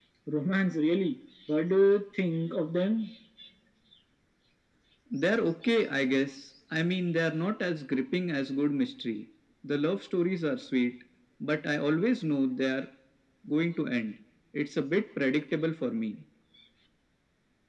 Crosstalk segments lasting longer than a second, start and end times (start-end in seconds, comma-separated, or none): none